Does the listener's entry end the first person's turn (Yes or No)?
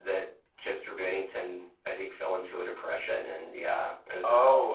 Yes